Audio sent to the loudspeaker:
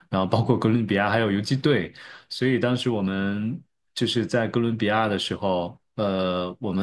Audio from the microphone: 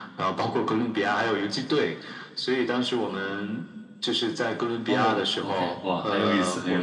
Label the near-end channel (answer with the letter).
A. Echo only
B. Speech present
B